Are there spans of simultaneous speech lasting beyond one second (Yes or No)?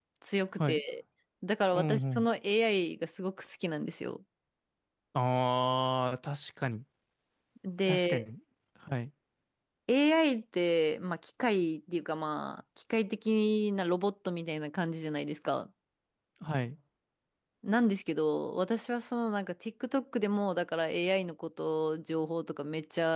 No